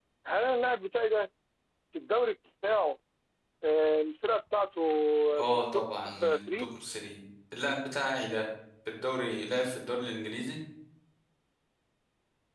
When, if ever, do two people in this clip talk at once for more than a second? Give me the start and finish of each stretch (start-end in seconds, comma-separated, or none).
5.4-6.7